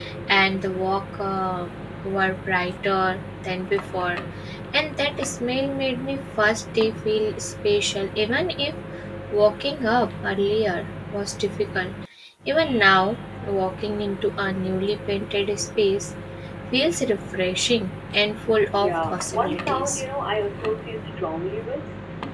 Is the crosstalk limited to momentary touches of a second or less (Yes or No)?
No